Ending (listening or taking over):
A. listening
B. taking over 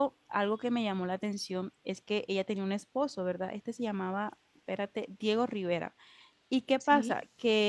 A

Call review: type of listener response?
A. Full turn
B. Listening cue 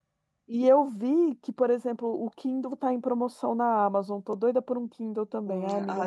A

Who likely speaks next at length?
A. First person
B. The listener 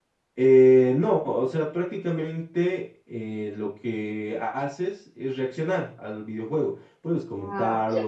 A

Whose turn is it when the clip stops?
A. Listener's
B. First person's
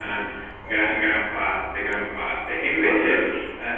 B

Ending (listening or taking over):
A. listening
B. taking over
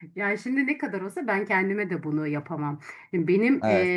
A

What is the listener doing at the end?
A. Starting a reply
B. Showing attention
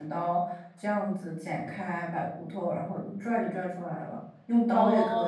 B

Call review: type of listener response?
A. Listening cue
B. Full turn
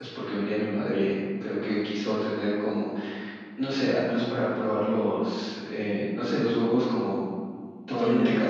A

